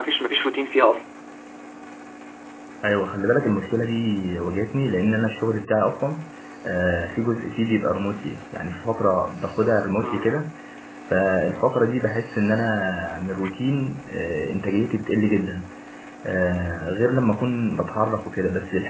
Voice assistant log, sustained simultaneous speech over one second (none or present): none